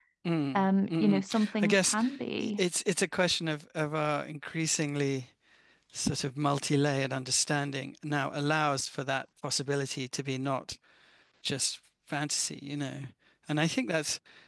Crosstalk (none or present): present